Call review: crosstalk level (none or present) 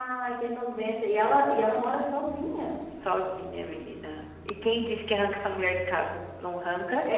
none